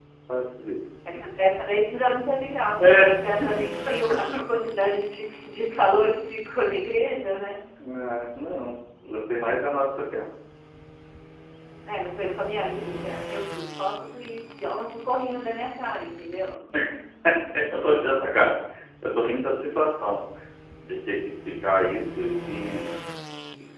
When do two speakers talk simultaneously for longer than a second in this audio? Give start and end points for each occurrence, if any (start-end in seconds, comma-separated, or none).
none